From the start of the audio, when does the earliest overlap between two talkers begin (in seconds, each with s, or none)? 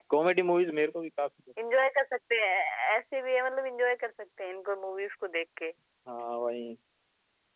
none